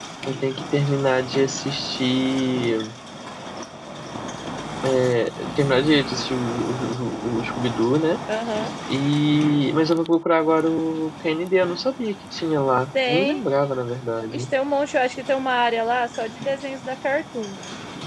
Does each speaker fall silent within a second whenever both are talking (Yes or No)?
Yes